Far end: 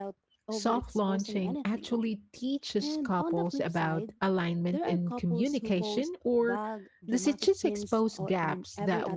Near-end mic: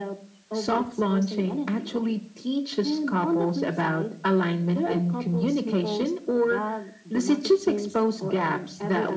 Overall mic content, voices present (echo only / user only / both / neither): echo only